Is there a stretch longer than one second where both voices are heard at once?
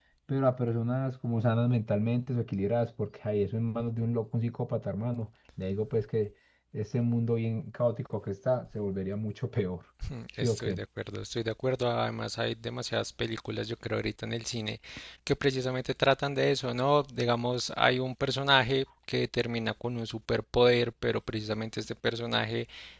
No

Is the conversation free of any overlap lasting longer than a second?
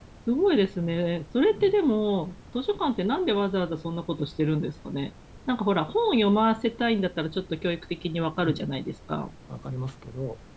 Yes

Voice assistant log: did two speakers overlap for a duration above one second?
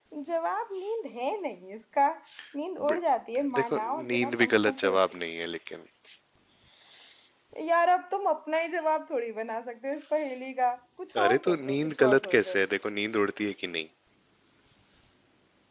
Yes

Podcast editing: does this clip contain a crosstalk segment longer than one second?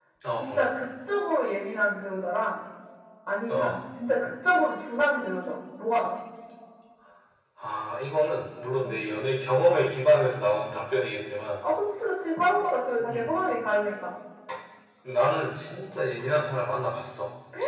No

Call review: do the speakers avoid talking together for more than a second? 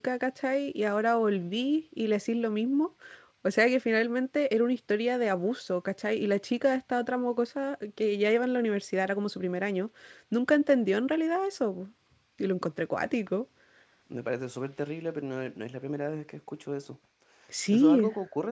Yes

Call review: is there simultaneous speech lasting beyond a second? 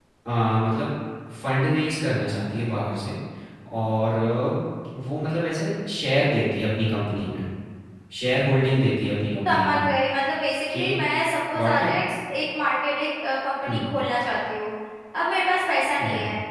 No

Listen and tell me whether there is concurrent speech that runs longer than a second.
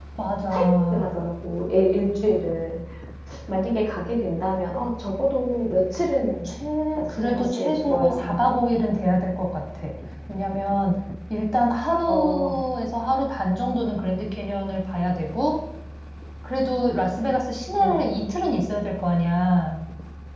Yes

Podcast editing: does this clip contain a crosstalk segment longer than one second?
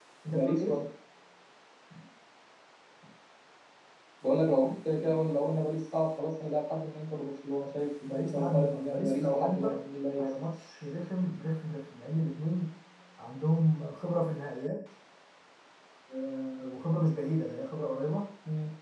Yes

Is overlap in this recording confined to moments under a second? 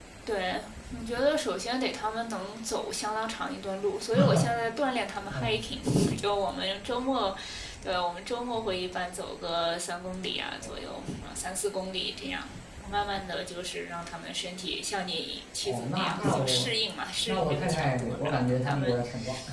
No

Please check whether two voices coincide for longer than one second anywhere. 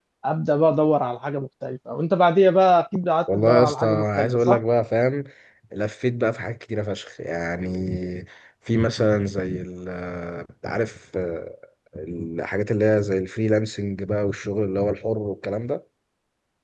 Yes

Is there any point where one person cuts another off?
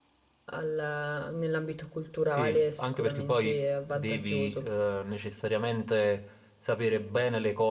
Yes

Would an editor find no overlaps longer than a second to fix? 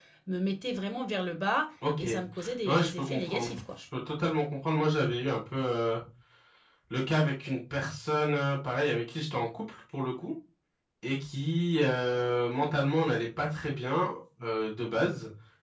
No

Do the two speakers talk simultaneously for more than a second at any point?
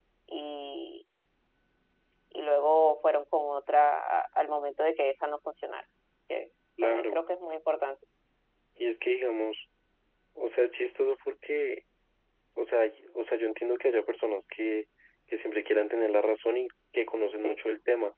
No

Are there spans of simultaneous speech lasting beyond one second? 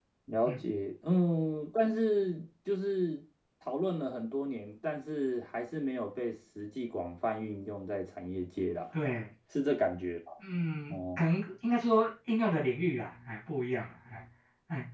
No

